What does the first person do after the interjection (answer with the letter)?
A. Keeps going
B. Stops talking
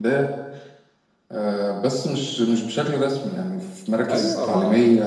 B